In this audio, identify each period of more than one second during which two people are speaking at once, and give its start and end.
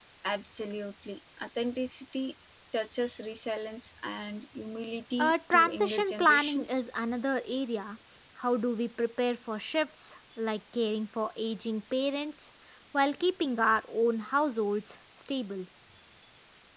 5.2-6.8

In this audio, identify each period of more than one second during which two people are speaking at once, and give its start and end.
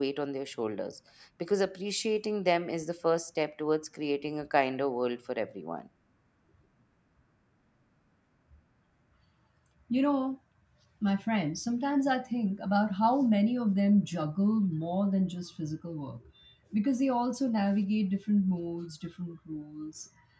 none

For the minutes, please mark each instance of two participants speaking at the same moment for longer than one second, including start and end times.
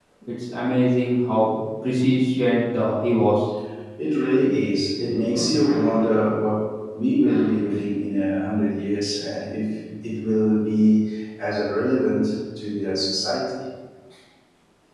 none

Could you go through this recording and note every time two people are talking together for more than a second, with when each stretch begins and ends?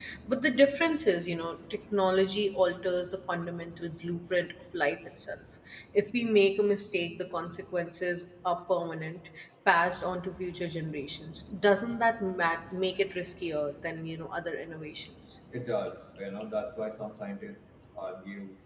none

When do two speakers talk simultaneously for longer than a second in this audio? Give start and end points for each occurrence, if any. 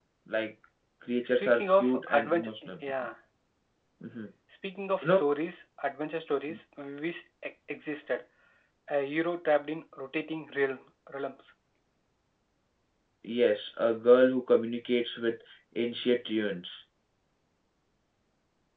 1.4-2.7

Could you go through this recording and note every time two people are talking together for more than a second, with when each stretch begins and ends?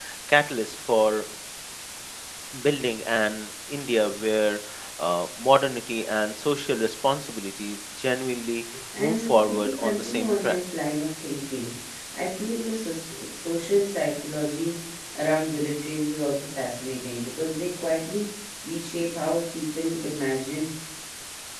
9.0-10.6

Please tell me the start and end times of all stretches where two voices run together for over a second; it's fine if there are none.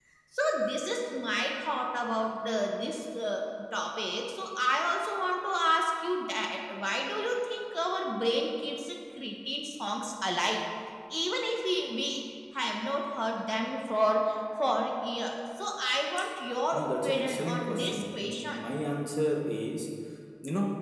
16.7-18.5

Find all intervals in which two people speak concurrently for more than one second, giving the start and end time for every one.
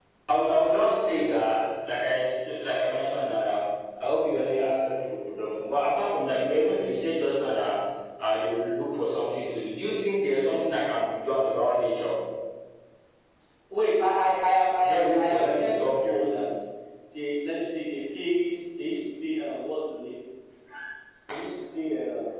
14.8-16.2

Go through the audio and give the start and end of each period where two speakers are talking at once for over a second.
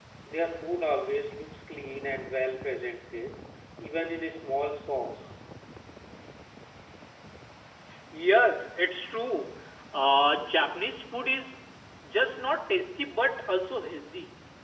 none

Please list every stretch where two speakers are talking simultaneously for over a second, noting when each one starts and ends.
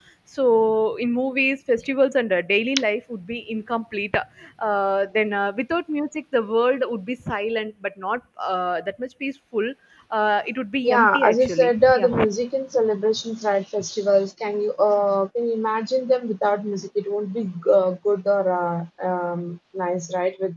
10.8-12.2

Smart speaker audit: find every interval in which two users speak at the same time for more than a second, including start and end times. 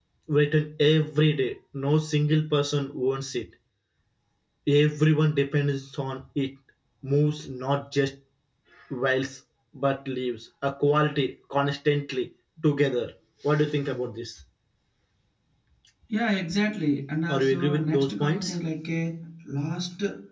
17.3-18.6

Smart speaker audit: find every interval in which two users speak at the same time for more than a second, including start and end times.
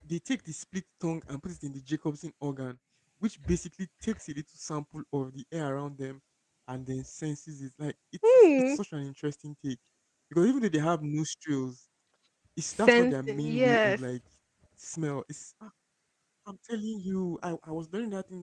12.7-14.0

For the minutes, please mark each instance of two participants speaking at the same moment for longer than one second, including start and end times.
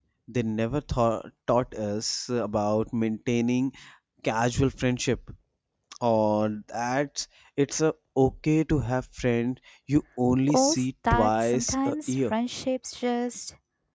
10.5-12.2

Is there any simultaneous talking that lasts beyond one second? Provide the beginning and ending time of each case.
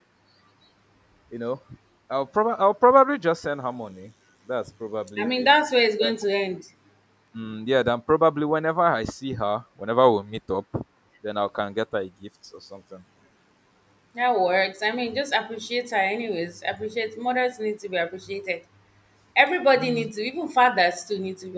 none

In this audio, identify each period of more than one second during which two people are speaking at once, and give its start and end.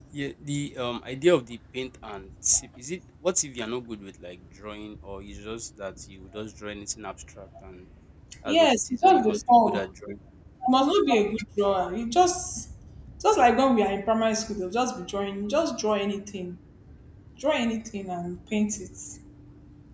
8.5-9.9

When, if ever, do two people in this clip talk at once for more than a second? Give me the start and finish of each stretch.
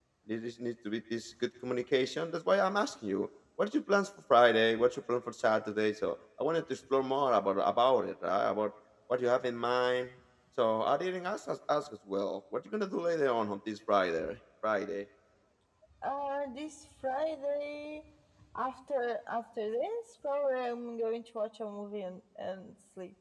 none

